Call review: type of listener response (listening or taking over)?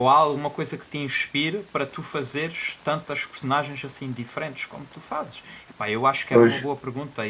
listening